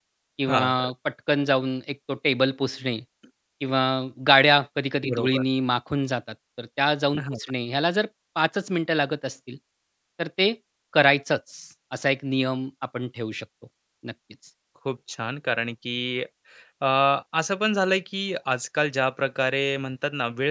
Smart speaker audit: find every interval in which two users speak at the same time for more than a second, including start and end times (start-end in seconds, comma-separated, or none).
none